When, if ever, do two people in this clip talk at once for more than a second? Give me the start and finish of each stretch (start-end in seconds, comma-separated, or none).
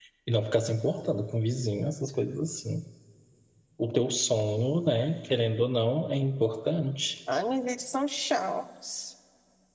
none